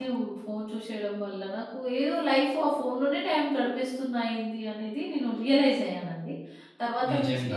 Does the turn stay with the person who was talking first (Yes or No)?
Yes